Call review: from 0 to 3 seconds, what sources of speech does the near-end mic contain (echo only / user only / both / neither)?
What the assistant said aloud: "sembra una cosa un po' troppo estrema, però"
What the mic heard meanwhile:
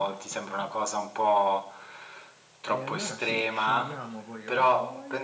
both